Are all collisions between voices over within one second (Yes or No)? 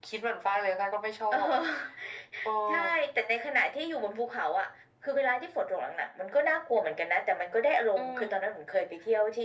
Yes